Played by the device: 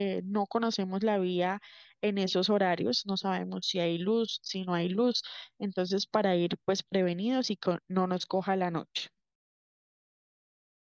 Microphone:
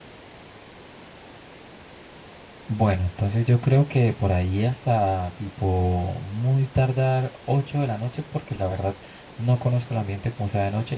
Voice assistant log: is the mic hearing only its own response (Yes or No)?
No